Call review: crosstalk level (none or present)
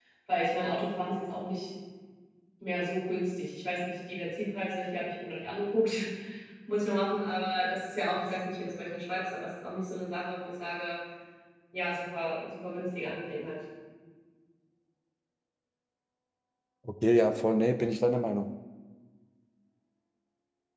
none